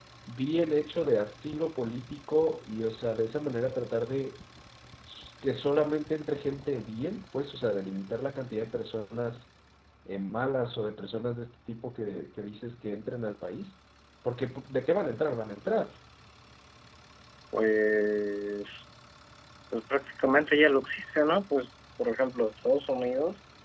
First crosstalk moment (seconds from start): none

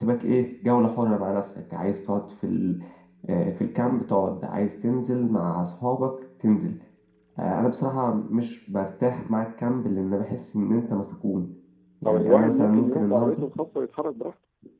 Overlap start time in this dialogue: 12 s

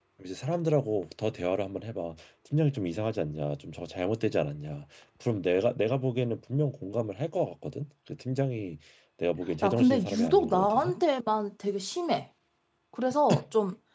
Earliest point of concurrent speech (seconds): 10 s

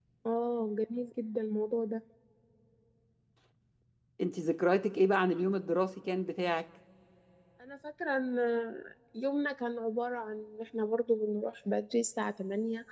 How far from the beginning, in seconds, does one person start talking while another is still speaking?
none

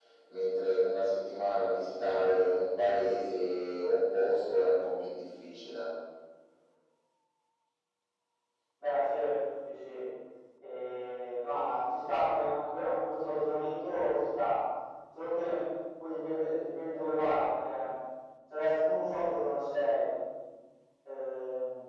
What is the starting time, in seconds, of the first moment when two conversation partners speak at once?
none

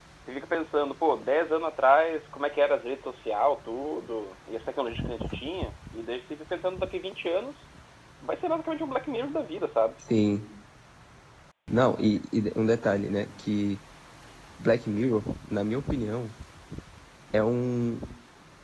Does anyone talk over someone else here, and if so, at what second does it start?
none

